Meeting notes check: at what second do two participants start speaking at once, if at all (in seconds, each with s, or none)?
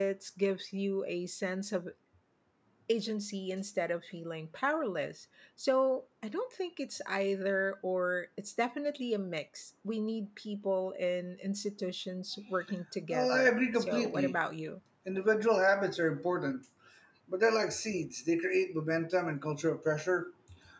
13.1 s